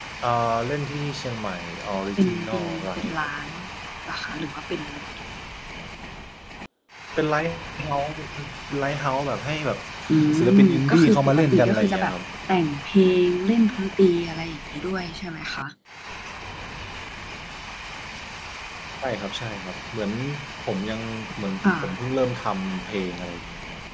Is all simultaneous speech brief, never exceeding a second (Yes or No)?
No